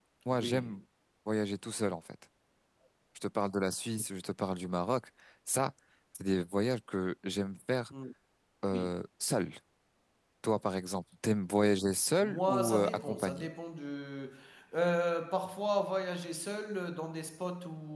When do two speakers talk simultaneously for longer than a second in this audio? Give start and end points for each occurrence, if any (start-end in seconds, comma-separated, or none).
12.2-13.5